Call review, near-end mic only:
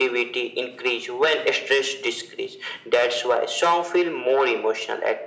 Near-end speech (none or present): none